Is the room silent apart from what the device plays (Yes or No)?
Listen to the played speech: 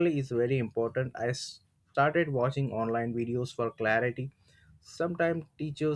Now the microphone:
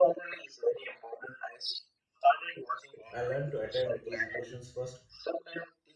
No